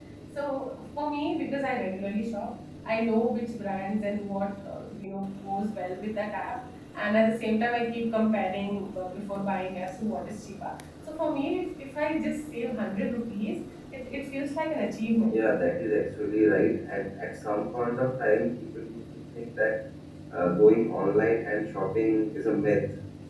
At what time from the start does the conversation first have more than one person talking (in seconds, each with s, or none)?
none